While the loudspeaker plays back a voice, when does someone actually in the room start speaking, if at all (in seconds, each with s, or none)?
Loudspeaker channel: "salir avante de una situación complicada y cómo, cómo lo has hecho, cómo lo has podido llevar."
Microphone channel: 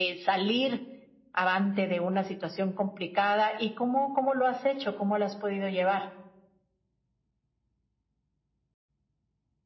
none